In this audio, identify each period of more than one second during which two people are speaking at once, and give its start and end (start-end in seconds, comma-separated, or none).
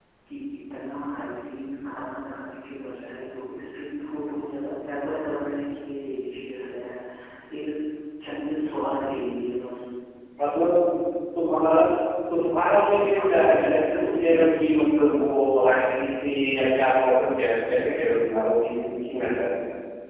12.9-15.0